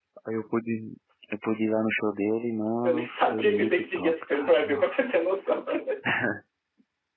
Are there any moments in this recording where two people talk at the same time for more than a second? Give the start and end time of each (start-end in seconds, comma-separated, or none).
2.8-5.5